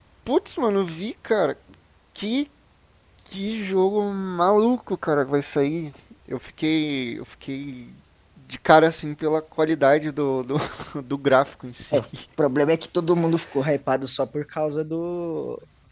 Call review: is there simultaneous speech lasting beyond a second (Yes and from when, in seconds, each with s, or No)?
No